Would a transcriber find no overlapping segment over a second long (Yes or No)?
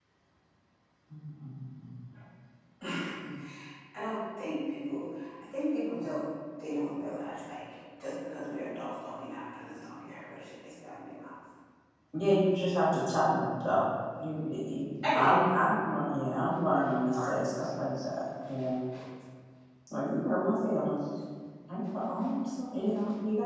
Yes